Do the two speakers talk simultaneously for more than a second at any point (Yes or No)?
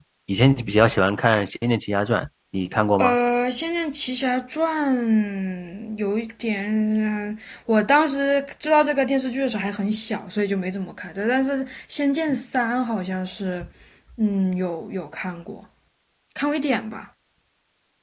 No